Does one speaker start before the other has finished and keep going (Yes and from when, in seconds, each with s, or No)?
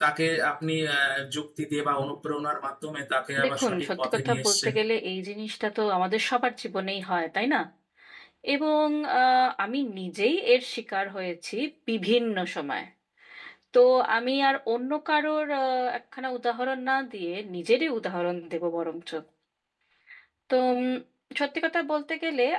Yes, from 3.4 s